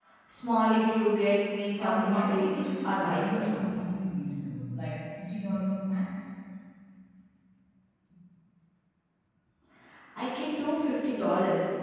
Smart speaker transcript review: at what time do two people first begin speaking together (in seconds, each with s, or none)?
1.8 s